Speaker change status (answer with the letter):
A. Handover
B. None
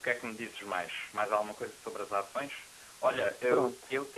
B